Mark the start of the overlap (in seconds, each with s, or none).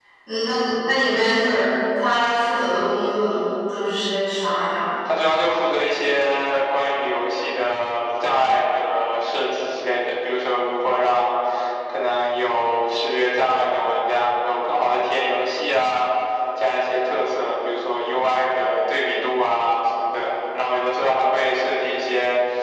none